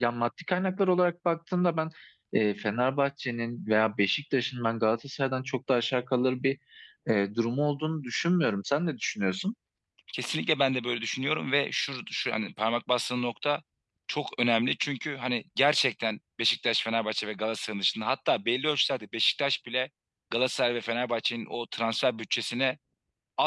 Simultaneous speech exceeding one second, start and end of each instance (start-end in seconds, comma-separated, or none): none